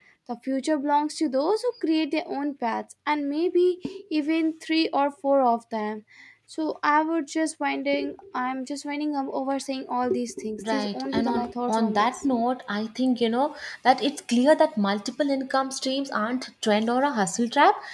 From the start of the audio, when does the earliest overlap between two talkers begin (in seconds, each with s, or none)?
10.6 s